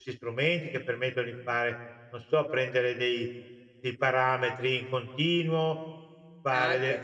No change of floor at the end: Yes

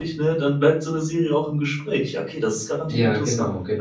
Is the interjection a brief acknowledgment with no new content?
No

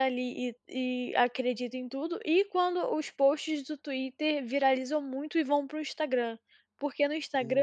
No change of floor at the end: Yes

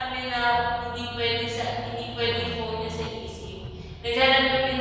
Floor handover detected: No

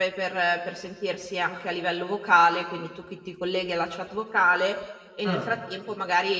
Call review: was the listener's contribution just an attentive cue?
Yes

